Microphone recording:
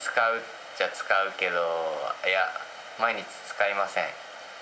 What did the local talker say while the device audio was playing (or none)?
none